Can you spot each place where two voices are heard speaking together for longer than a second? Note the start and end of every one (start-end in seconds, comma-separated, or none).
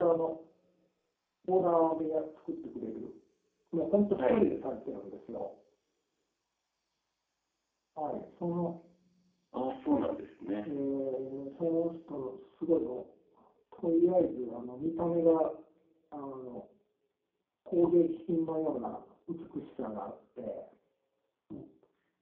none